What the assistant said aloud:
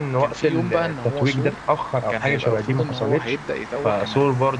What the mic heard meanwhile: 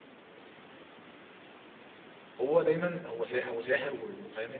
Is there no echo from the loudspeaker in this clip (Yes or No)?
Yes